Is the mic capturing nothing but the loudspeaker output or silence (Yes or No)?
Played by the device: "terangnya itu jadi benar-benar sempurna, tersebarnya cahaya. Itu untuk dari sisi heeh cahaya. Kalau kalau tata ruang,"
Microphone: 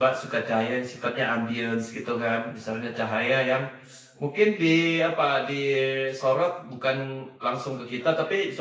No